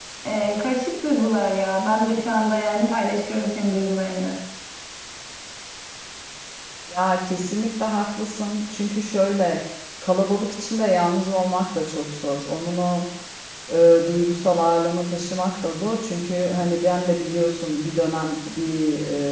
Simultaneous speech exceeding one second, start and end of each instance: none

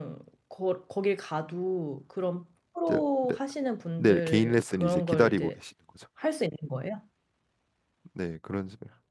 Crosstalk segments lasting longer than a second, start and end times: 4.0-5.5

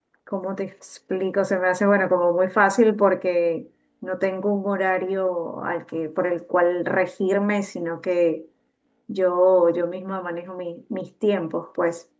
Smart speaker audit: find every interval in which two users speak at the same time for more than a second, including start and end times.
none

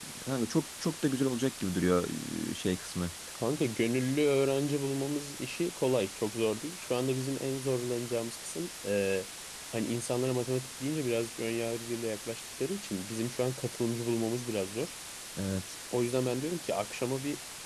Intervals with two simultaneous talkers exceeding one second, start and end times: none

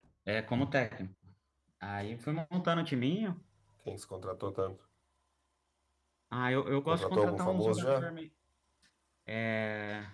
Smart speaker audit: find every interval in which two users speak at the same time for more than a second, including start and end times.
6.8-8.1

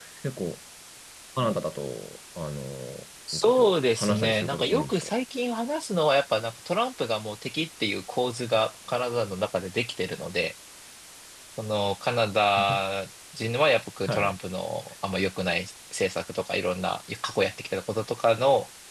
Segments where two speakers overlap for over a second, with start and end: 3.3-5.1

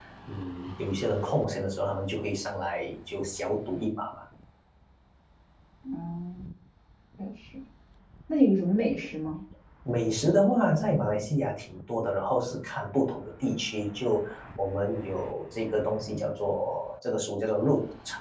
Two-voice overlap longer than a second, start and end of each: none

